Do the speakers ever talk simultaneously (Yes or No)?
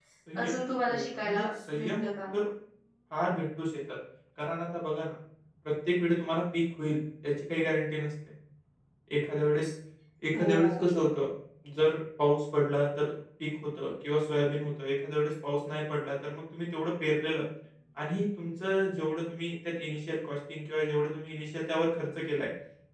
Yes